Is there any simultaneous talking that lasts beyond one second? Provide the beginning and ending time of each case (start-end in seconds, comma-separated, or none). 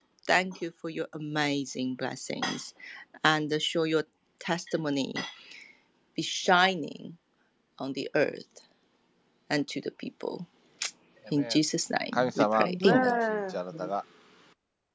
12.1-13.6